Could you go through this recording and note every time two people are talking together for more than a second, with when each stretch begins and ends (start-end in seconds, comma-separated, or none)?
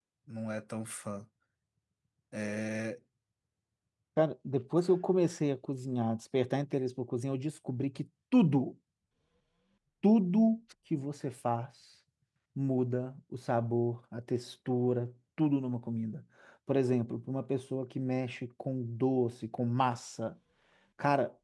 none